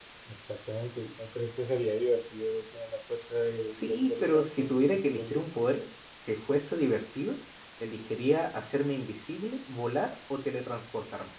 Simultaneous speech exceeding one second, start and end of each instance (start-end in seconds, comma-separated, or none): 3.8-5.5